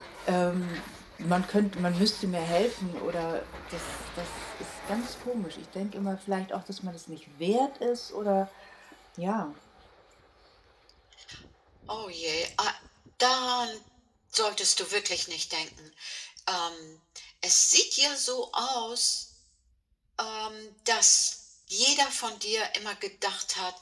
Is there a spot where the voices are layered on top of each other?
No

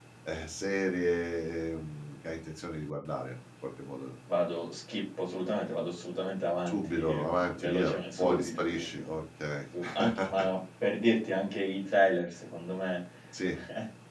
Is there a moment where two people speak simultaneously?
Yes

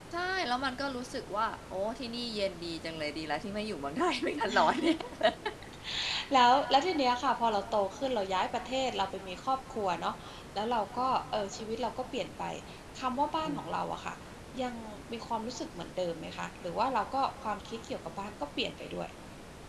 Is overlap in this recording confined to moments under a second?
Yes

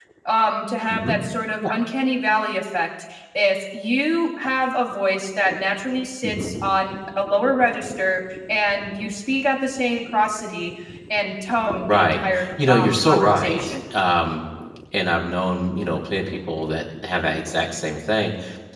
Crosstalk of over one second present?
Yes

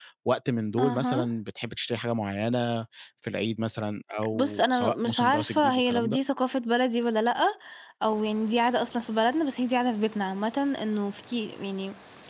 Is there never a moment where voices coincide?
No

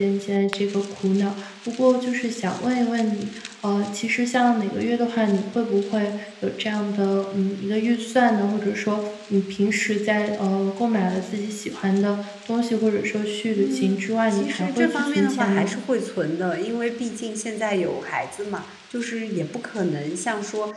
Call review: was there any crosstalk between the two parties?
Yes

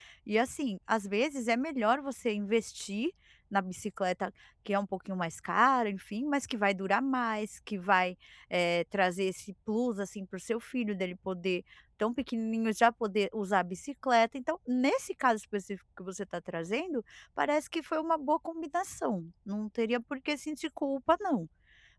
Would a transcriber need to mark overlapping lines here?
No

